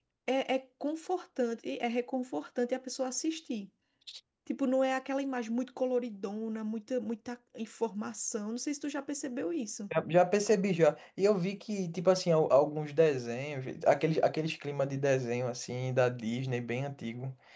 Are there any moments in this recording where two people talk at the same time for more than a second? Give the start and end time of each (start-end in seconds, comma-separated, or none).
none